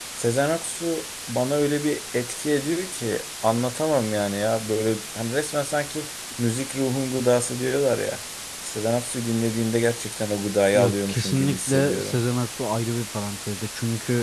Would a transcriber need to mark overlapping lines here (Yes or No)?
Yes